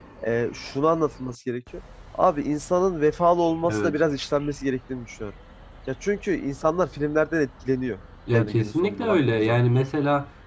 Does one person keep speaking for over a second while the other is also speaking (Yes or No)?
Yes